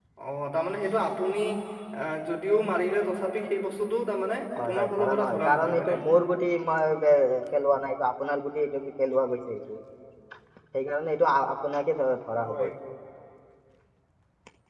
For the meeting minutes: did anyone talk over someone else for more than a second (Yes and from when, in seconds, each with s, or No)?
Yes, from 4.6 s